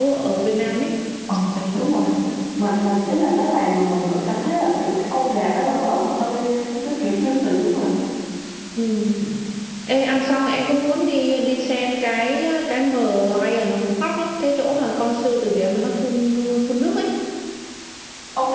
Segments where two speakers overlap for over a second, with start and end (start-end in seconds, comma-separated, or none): none